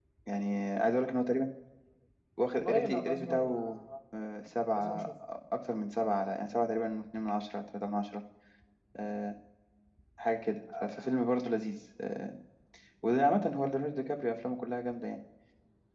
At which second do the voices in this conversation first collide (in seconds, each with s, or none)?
2.5 s